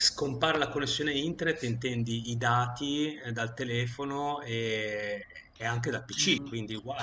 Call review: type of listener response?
taking over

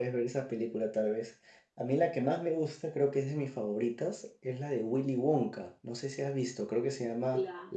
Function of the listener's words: taking over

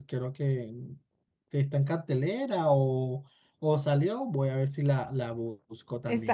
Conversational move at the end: taking over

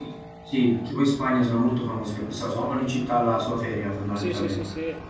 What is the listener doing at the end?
taking over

